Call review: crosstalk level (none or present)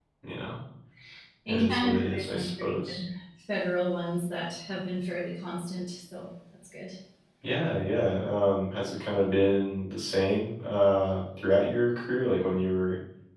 present